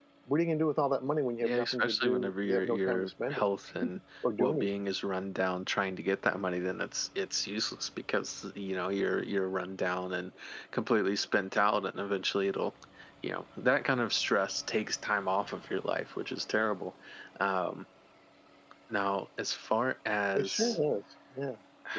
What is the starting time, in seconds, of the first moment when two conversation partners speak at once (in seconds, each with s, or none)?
1.4 s